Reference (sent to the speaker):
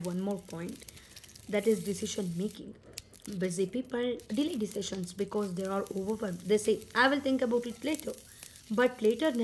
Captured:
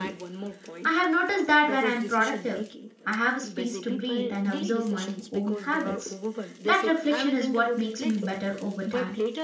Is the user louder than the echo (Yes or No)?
Yes